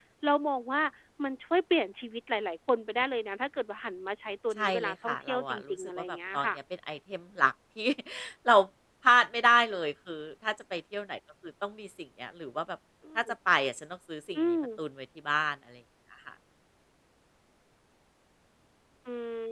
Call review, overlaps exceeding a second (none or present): present